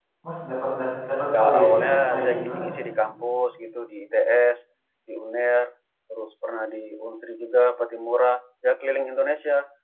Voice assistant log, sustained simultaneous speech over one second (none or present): present